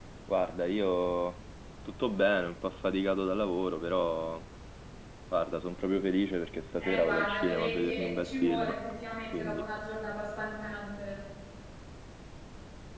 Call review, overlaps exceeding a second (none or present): present